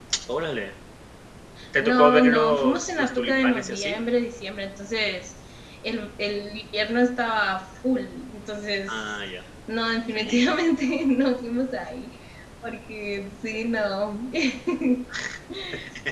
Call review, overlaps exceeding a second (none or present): present